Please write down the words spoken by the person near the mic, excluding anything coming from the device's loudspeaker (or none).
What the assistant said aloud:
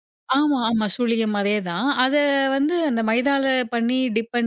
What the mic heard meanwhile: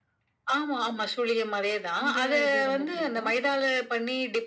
அந்த இது ரொம்ப பிடிக்கும்.